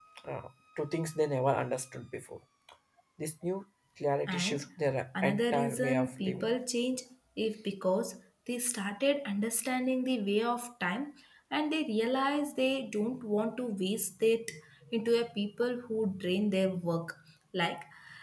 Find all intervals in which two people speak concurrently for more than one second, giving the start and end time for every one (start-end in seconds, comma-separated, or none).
5.2-6.5